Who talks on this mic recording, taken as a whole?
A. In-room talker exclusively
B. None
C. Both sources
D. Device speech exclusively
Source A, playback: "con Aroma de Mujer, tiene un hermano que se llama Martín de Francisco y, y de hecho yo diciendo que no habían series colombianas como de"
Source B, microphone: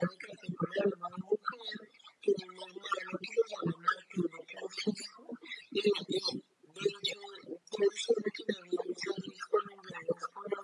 D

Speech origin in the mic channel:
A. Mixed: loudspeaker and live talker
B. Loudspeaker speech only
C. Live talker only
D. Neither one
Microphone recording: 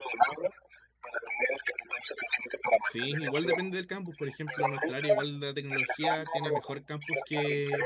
A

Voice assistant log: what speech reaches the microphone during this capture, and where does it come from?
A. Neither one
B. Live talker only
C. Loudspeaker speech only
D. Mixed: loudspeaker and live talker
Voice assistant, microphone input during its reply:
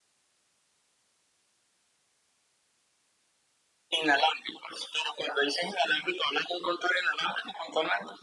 C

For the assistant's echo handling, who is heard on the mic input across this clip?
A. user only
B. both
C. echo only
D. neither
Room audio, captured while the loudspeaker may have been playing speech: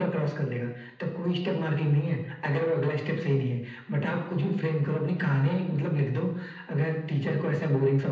C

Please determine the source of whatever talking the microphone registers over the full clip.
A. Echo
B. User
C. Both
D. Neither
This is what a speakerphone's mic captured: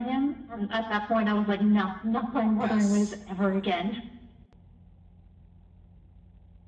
C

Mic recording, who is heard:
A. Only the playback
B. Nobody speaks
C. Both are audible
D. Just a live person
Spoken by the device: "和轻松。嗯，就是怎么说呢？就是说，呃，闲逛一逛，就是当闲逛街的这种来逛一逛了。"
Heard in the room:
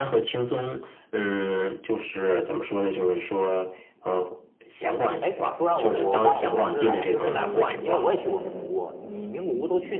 C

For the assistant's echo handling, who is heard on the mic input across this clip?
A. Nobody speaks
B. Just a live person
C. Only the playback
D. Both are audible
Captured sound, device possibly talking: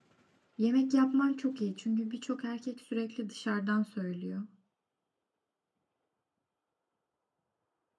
B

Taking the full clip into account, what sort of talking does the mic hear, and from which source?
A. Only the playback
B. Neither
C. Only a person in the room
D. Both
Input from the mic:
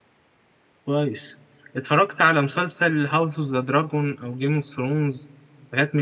C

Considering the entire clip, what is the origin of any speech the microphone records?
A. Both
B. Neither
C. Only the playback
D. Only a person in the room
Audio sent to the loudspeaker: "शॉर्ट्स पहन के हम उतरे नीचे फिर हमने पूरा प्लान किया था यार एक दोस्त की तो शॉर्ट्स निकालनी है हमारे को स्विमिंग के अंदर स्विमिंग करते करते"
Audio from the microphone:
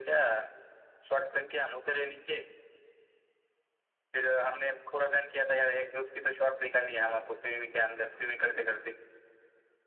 C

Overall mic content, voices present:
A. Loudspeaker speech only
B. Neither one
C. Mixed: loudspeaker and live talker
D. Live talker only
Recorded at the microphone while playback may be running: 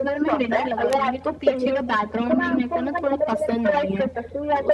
A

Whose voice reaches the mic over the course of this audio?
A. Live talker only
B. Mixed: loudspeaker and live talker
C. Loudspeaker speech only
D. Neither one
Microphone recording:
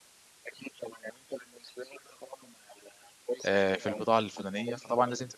B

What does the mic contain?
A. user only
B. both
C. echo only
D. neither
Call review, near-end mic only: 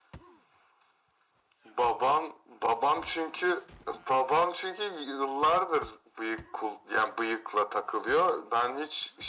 C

